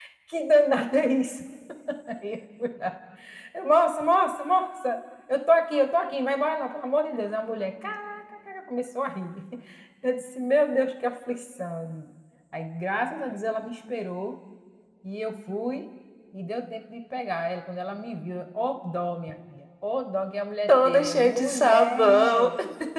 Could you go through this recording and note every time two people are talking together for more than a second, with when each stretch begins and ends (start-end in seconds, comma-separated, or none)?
20.7-22.5